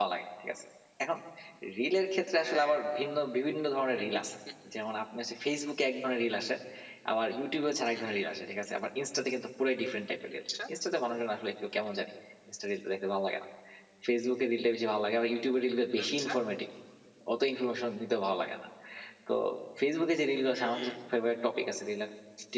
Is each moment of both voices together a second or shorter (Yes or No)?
Yes